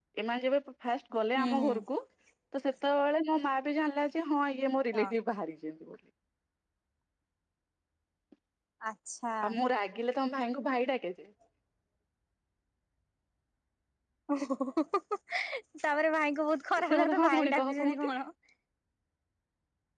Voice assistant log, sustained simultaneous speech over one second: present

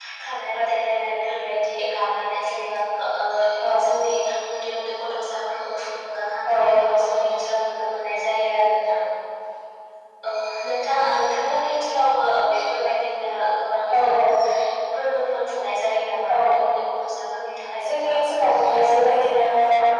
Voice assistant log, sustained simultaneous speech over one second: present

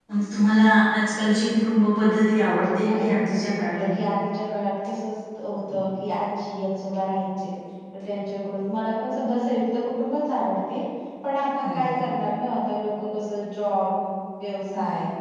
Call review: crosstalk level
present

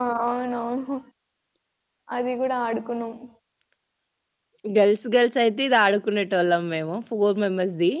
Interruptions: none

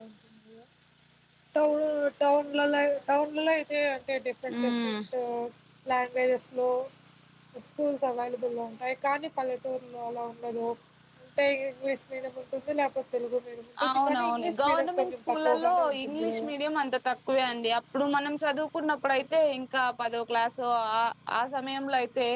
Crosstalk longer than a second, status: present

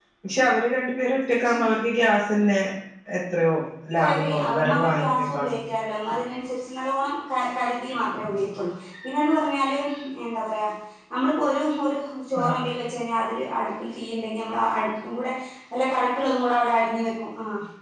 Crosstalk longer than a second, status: present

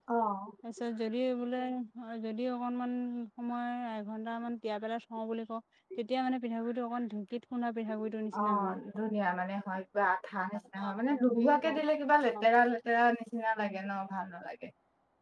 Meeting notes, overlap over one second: present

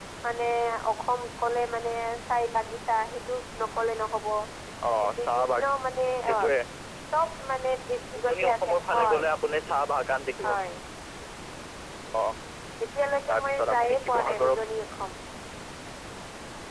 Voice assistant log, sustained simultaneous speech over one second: present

